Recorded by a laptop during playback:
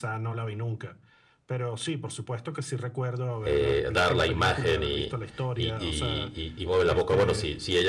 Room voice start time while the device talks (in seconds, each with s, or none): 3.4 s